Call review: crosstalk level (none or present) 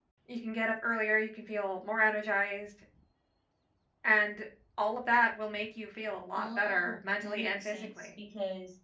present